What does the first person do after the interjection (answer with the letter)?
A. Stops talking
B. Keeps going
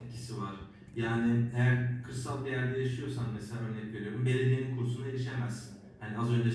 B